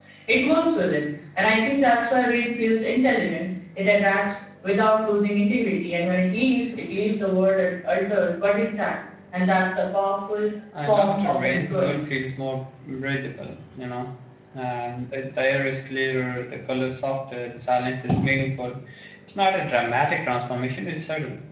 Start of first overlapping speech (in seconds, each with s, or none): 10.7 s